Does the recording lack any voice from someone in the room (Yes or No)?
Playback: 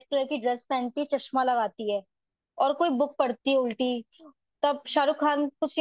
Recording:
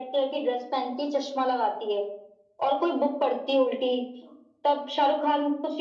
Yes